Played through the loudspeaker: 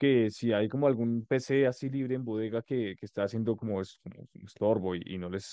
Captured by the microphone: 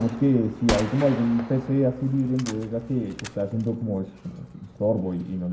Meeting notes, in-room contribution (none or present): none